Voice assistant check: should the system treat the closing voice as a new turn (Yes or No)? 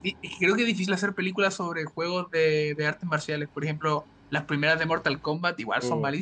Yes